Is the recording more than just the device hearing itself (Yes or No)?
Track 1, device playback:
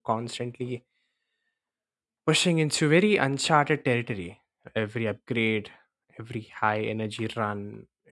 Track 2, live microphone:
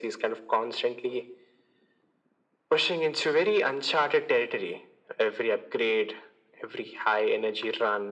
No